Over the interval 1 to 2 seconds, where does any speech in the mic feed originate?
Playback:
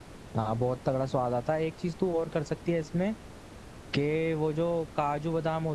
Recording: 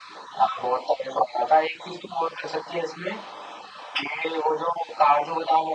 echo only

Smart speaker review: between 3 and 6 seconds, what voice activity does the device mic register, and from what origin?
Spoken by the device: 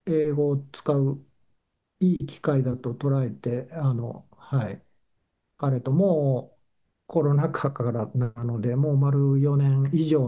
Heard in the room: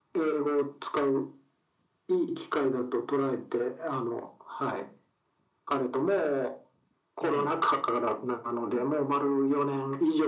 echo only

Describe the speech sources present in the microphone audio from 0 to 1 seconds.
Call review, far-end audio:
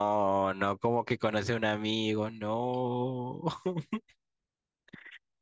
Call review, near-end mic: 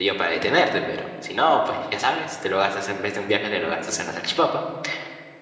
user only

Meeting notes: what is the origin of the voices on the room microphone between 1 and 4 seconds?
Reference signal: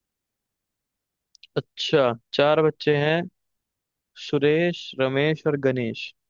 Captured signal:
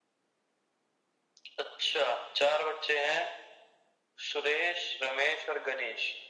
echo only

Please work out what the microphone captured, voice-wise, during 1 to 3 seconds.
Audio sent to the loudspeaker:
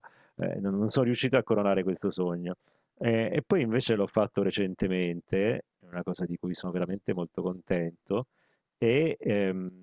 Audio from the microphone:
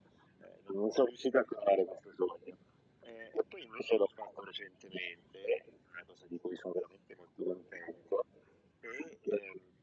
echo only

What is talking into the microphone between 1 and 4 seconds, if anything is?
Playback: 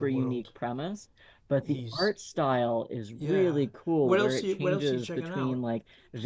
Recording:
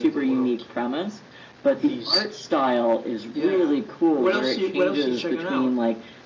echo only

